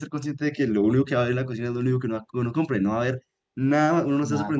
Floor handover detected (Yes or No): Yes